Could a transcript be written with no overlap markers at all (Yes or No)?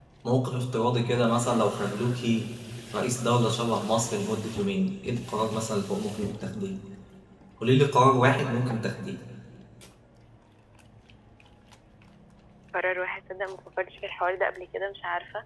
Yes